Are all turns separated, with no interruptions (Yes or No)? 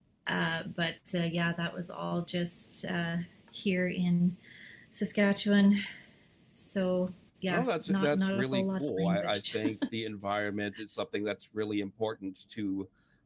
No